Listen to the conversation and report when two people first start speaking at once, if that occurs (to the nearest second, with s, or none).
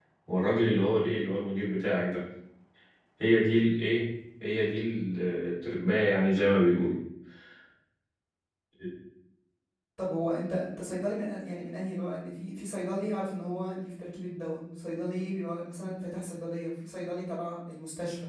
none